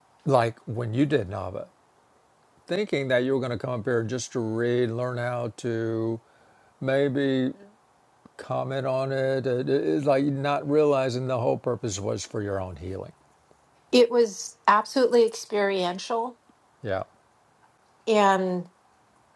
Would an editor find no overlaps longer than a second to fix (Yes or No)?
Yes